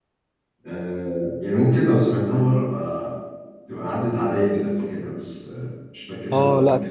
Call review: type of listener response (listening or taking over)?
taking over